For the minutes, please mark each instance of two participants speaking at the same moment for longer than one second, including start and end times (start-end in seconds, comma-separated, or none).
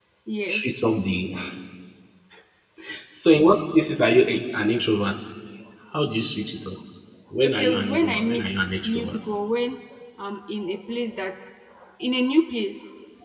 7.5-9.2